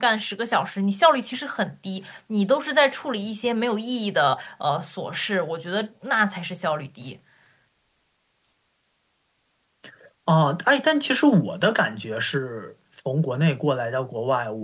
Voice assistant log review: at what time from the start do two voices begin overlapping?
none

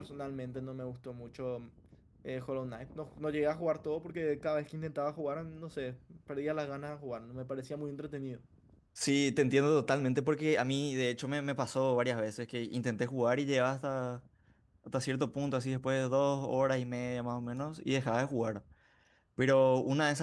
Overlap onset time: none

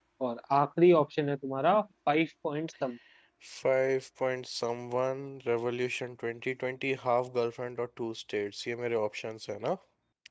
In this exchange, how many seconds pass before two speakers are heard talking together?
none

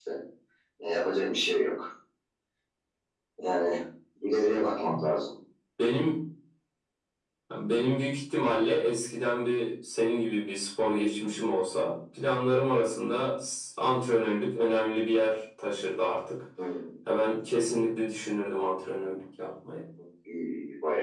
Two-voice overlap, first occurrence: none

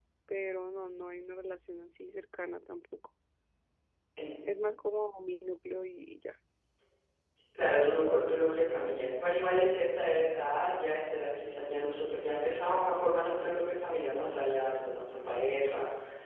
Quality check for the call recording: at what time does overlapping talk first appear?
none

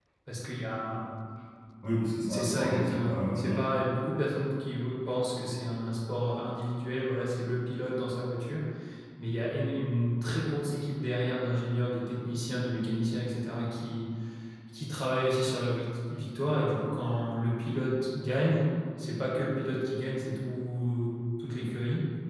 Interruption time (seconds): 2.3 s

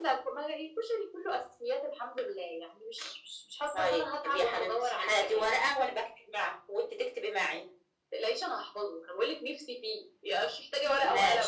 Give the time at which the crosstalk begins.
3.7 s

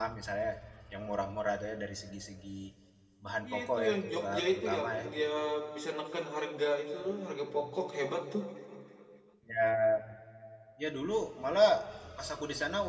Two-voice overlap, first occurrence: 3.5 s

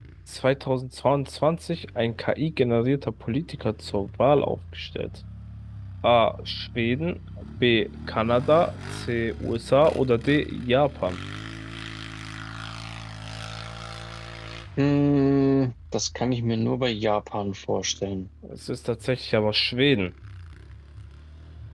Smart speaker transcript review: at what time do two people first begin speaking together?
none

